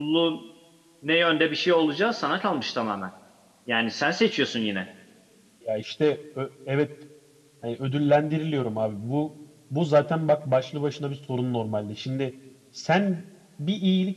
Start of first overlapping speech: none

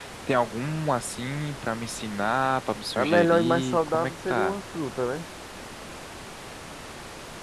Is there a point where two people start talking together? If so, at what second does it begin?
3.0 s

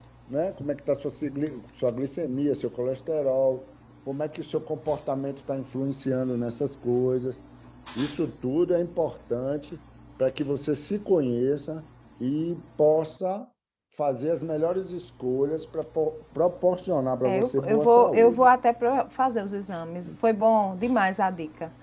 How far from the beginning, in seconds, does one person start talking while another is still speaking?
17.2 s

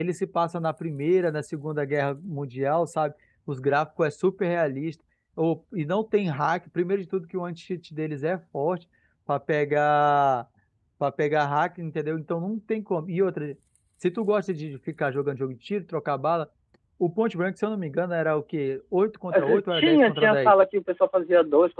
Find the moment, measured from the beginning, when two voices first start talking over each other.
19.3 s

